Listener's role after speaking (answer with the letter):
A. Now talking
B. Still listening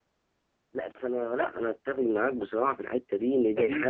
A